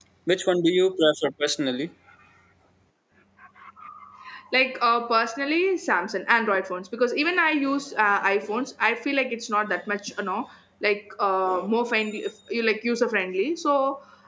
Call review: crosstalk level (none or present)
none